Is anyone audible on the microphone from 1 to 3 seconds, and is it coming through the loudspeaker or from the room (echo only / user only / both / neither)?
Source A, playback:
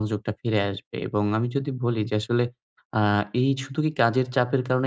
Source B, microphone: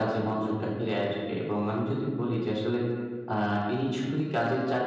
echo only